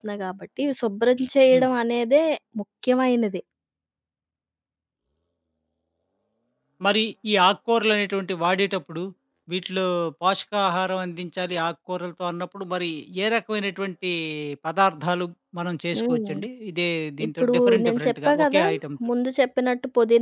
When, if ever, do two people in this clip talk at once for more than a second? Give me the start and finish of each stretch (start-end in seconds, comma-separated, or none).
17.3-18.6